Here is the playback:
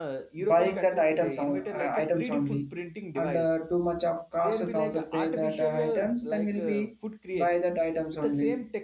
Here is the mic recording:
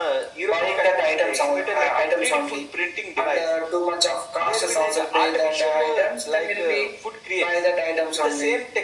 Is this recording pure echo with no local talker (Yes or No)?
Yes